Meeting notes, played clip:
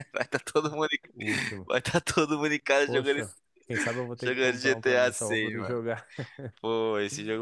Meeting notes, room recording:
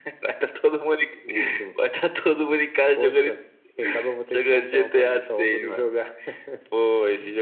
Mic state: echo only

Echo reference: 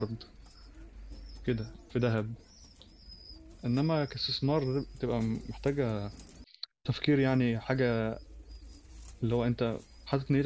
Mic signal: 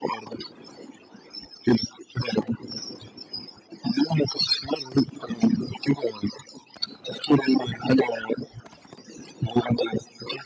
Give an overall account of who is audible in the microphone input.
echo only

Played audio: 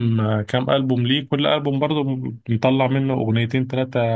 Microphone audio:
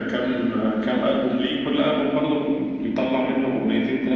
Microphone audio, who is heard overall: echo only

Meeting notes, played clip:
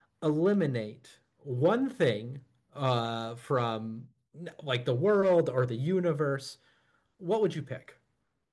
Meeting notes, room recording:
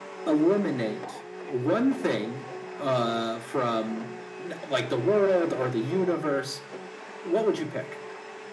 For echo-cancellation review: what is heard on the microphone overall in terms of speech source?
echo only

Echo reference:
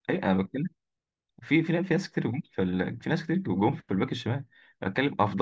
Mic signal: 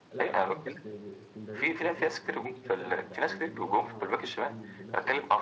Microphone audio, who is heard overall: both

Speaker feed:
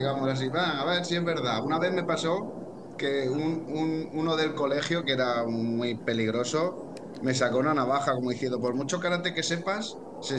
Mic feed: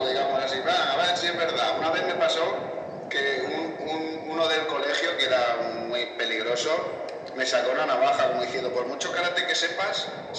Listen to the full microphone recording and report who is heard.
echo only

